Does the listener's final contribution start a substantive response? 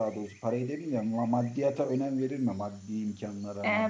Yes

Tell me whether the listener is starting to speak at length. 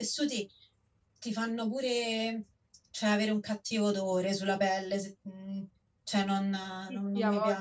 Yes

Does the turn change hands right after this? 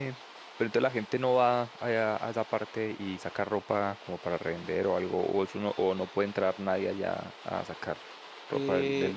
Yes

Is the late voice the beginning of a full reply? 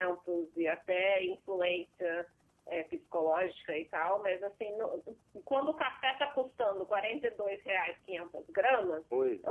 No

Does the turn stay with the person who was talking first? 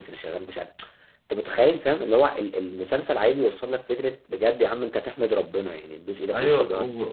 No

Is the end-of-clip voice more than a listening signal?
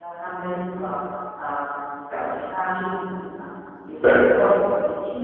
No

